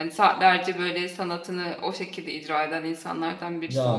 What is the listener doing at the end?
taking over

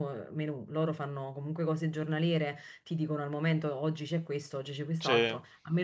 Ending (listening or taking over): listening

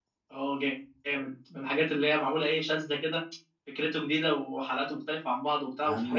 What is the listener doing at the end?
taking over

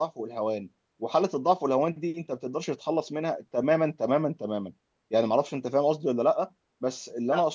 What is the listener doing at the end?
listening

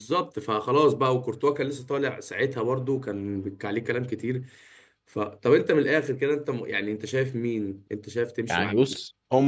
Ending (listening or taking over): taking over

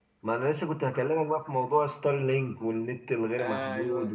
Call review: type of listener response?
listening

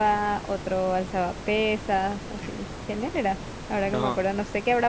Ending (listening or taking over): listening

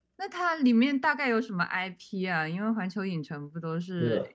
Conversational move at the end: taking over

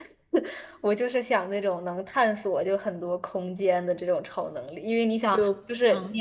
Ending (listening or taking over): listening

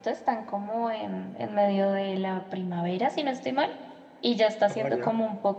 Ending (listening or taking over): listening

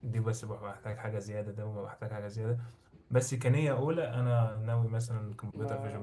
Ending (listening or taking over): taking over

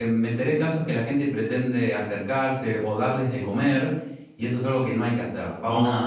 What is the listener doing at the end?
listening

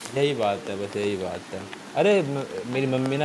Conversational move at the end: listening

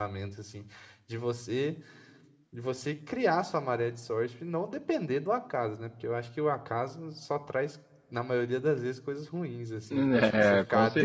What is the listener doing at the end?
taking over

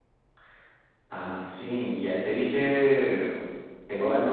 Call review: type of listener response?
listening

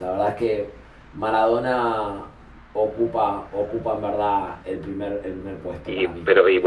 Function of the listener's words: taking over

